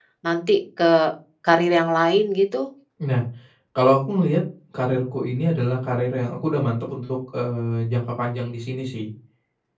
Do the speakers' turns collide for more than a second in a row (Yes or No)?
No